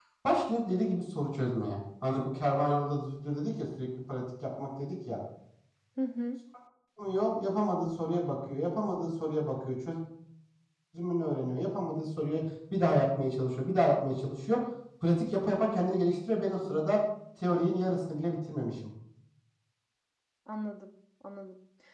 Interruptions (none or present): none